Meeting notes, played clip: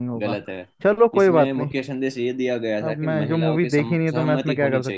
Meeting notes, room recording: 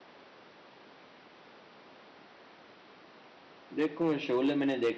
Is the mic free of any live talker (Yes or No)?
No